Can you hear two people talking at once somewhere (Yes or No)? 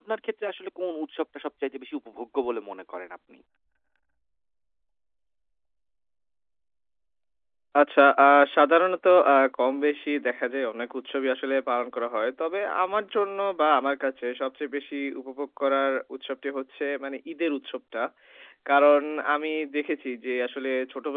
No